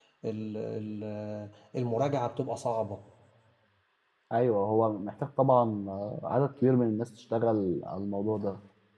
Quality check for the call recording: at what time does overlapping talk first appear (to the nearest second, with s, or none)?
none